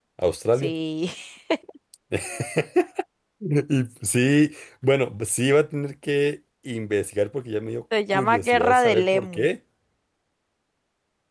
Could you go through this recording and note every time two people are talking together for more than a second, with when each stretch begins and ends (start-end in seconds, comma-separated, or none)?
8.1-9.5